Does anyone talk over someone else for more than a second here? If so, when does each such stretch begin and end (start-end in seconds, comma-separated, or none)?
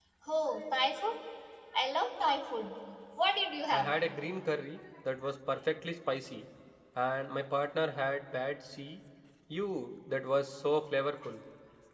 none